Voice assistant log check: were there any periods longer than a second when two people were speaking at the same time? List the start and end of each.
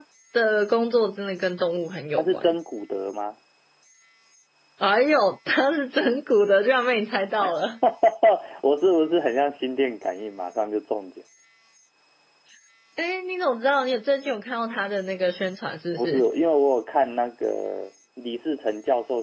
none

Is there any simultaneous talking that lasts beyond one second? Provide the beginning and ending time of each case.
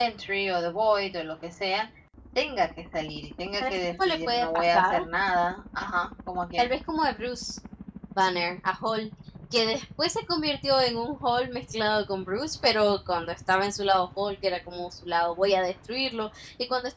3.6-4.9

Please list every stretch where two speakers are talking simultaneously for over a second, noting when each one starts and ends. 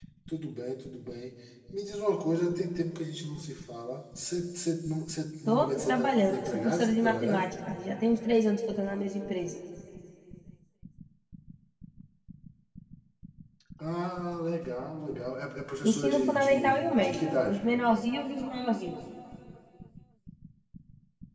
5.5-7.5, 15.9-17.6

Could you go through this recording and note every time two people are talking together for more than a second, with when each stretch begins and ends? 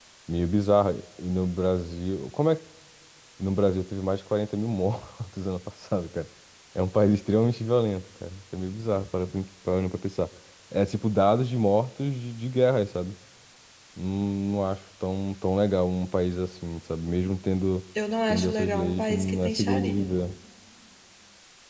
18.3-20.1

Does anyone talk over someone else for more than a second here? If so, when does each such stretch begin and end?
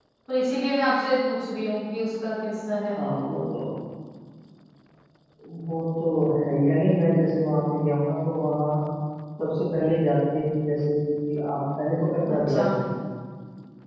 none

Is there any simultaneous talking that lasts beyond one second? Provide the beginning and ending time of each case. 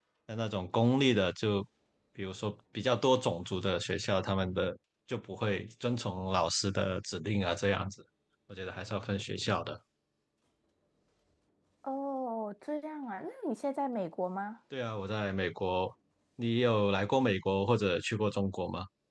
none

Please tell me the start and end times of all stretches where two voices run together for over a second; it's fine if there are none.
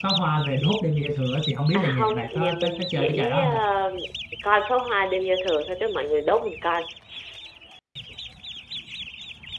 1.7-3.6

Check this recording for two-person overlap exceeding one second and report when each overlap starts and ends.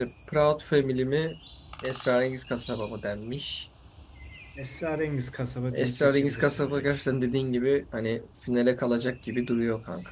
5.7-6.9

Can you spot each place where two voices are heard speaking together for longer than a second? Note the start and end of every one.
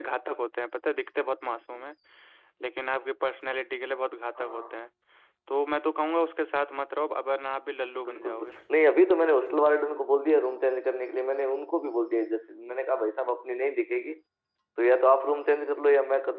none

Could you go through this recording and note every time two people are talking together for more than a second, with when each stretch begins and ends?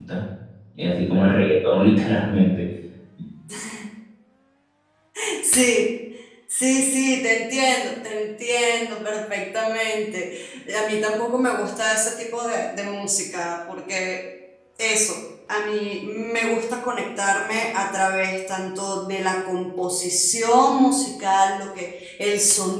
none

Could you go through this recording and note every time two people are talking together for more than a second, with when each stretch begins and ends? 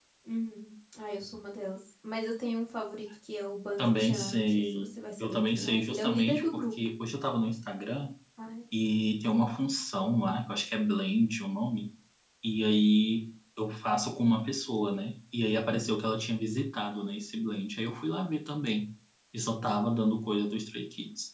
3.8-6.6

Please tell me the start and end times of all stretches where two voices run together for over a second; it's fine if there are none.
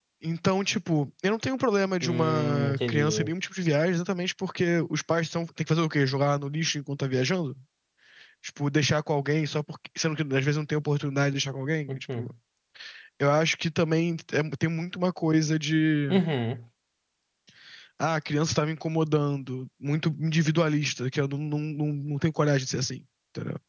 2.0-3.3

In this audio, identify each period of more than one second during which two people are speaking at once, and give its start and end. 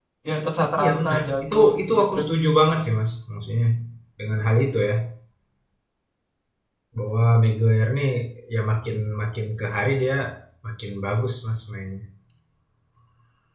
0.8-2.0

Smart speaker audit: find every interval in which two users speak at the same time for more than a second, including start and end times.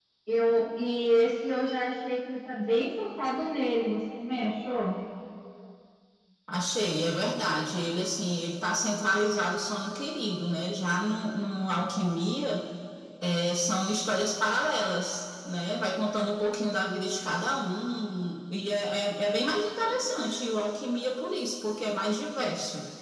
none

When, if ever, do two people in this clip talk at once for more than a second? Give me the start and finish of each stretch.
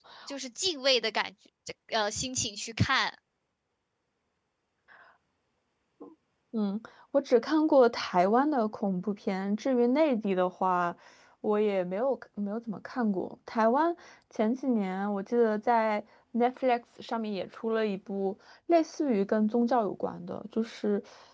none

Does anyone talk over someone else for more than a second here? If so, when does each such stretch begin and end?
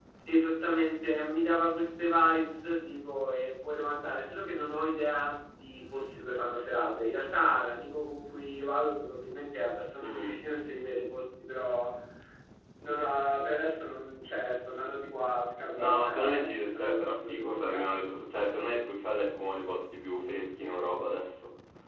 15.8-18.1

